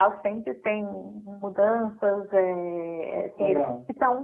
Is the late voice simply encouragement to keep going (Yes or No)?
Yes